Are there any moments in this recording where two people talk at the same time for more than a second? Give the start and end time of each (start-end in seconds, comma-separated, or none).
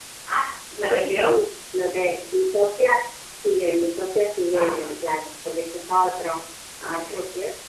none